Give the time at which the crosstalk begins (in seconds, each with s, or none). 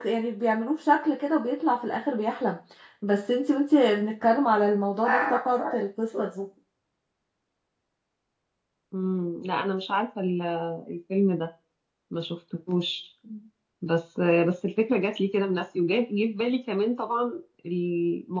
none